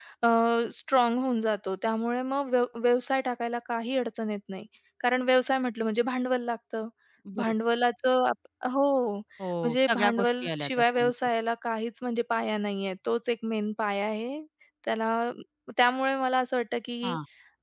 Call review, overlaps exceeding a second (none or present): present